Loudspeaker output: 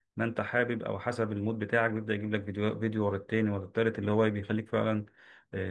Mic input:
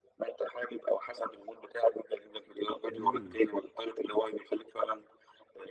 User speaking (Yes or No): Yes